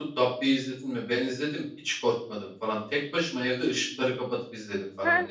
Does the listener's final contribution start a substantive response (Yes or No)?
Yes